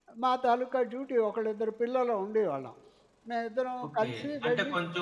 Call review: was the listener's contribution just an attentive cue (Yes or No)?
No